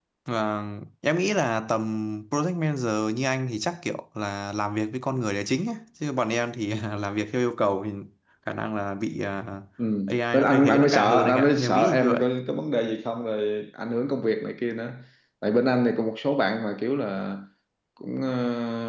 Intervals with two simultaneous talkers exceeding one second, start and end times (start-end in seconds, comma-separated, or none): 10.3-12.2